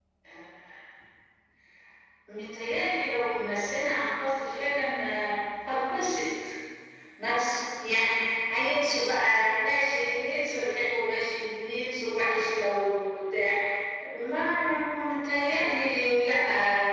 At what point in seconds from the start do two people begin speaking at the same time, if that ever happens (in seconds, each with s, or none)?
none